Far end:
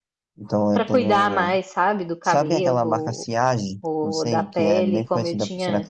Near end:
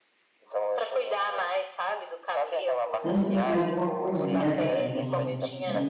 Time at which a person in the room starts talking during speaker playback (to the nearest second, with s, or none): 3 s